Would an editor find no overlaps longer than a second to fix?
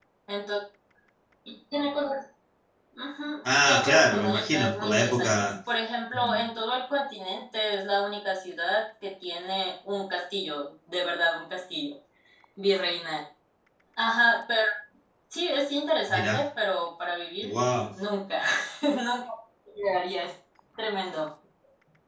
No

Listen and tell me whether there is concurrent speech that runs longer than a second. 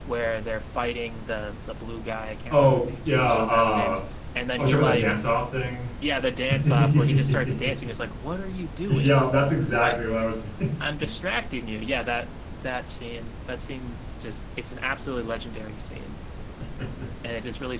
Yes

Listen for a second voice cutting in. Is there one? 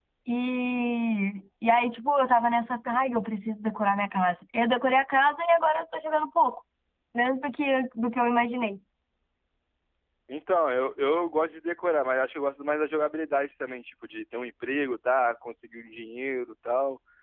No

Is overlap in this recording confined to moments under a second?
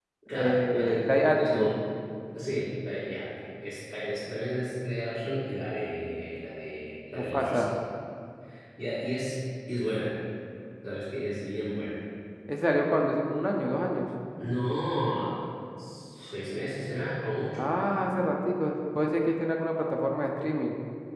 No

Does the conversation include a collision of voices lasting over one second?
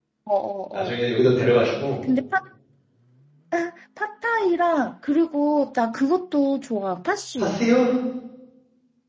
No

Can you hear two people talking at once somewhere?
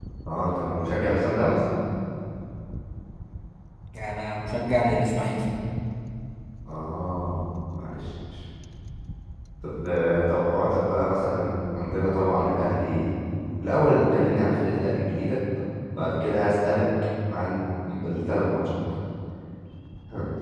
No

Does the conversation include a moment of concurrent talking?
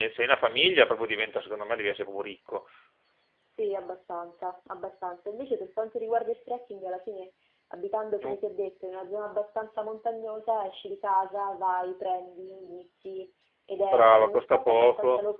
Yes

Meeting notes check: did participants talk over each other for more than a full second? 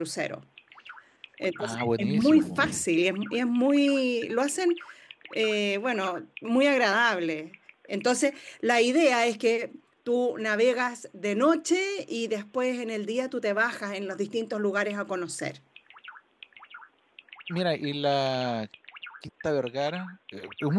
Yes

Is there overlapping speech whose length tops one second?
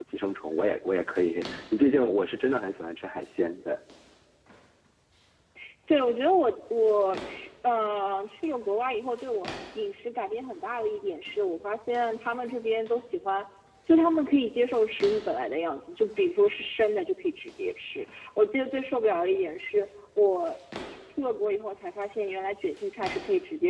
No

